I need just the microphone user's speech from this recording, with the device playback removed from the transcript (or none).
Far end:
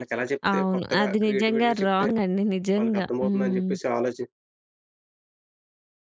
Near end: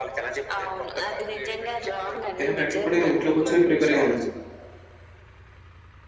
ఇలాగ ఆటిలకి కూడా నేను ఇంట్లో కూర్చొని ప్రిపేర్ అయ్యానండి.